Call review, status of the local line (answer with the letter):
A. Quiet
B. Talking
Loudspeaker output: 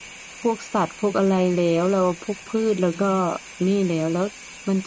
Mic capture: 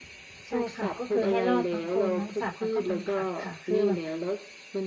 B